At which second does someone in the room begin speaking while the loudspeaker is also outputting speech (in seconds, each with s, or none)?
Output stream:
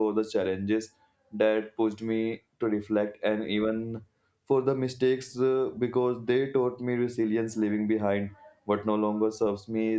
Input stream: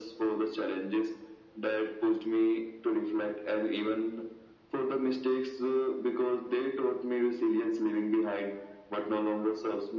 none